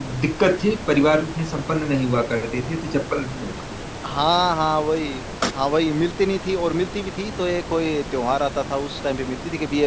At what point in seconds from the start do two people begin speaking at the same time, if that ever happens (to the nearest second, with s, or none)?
none